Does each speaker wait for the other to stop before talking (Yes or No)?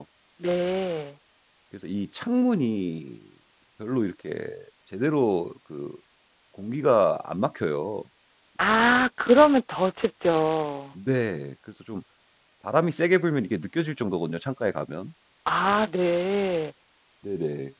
Yes